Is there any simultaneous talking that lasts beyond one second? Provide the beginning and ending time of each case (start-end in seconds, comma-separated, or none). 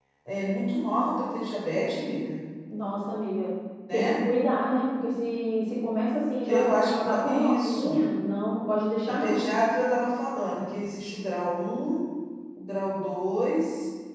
6.5-8.0